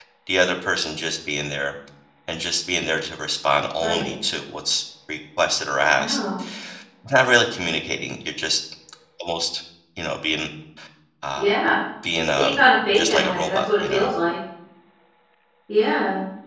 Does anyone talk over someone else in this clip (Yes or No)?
Yes